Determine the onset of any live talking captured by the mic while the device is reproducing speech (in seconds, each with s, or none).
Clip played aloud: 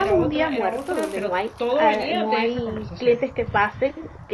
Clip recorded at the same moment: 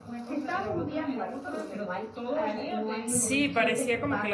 3.0 s